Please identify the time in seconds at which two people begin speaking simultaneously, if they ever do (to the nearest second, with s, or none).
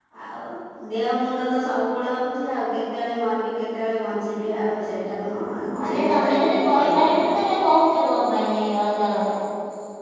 6 s